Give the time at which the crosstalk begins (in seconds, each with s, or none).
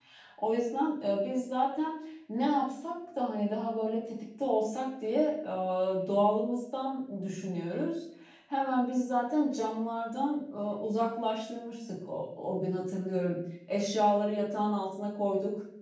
none